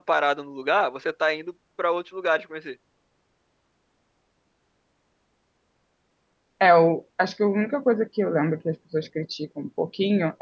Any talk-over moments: No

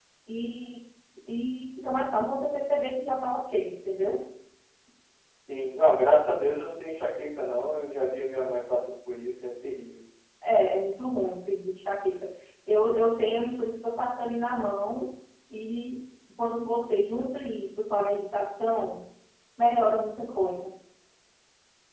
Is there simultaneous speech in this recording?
No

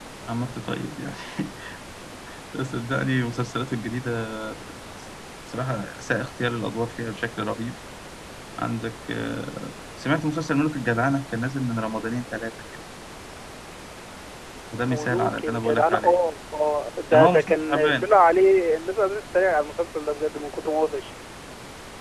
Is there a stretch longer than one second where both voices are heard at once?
Yes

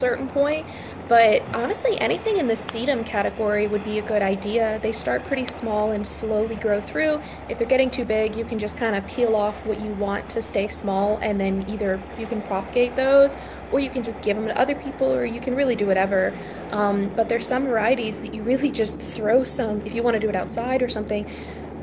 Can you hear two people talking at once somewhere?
No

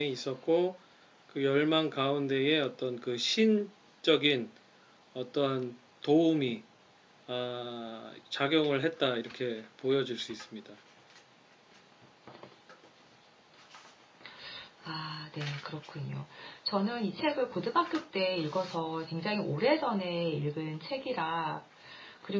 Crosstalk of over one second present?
No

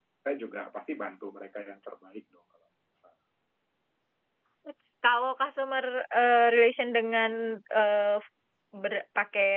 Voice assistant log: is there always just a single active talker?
Yes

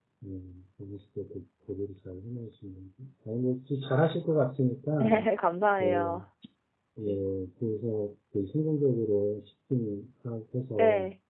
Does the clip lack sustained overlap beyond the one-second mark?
Yes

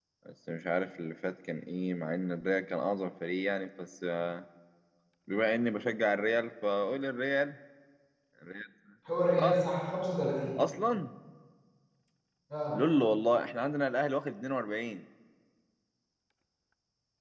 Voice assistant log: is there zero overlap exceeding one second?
Yes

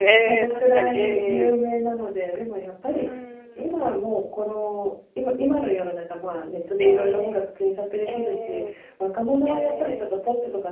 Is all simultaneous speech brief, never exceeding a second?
No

